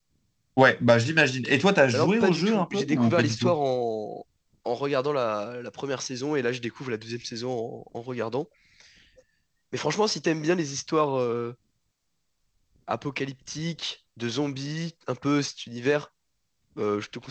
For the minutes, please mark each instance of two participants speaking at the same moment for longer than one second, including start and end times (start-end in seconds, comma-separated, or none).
1.9-3.5